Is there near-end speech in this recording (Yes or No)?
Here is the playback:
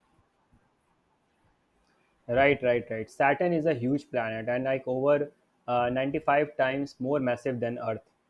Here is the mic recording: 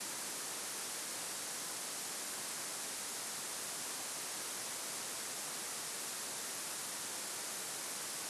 No